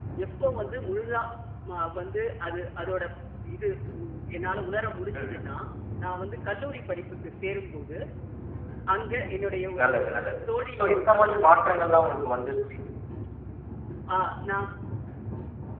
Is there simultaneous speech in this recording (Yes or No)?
Yes